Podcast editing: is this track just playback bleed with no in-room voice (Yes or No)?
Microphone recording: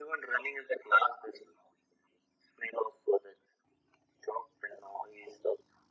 Yes